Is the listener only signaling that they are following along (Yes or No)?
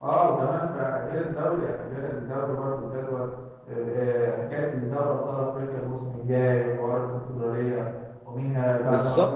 Yes